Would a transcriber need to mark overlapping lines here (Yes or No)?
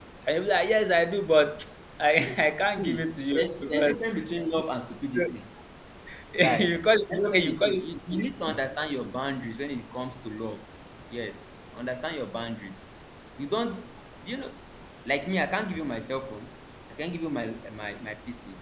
Yes